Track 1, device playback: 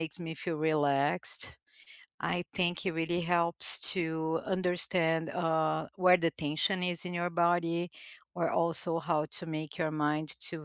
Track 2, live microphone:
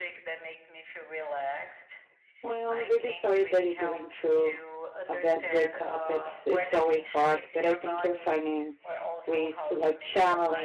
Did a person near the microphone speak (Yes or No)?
Yes